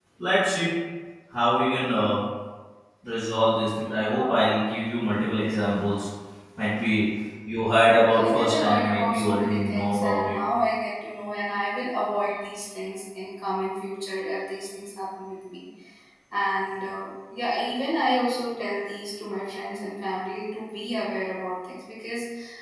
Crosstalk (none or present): present